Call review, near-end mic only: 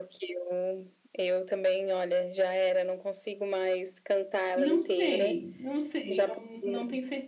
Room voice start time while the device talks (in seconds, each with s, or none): 4.5 s